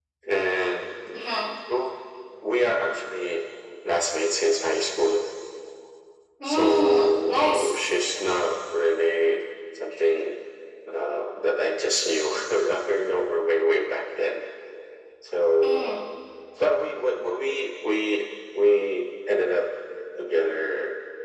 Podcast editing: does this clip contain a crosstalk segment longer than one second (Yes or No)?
Yes